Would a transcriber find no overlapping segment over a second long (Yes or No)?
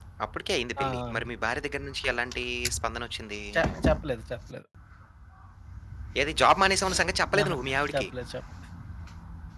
Yes